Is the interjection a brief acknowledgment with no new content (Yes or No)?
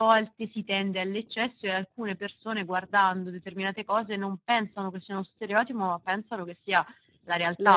Yes